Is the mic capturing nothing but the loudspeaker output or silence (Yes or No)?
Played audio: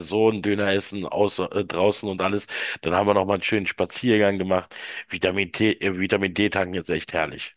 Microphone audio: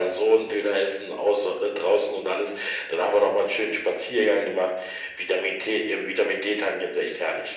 Yes